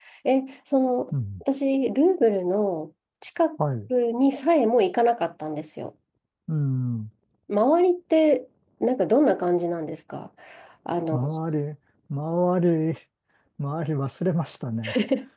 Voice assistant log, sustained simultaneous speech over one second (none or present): none